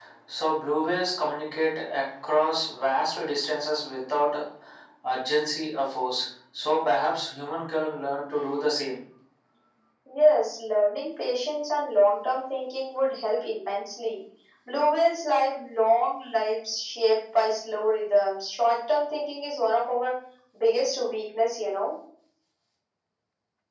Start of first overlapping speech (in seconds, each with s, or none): none